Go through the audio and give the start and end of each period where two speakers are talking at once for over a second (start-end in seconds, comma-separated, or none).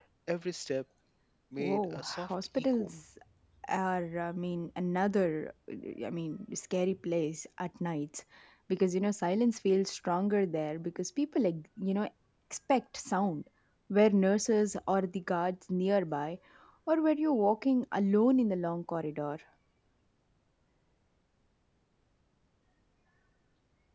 1.6-2.9